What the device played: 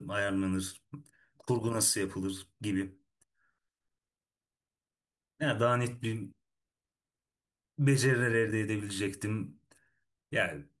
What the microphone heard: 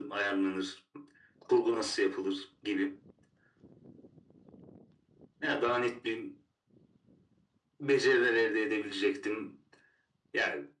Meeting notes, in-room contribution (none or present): none